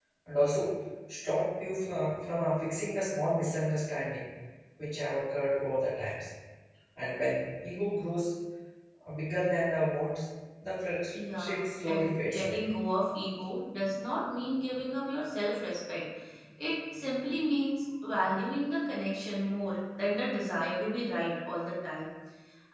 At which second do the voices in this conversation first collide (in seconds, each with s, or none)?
11.2 s